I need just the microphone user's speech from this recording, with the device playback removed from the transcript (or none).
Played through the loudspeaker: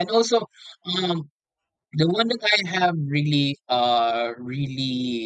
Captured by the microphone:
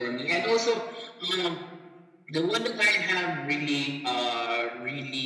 none